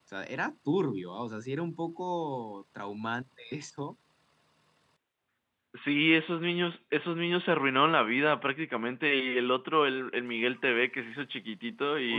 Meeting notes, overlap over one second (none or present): none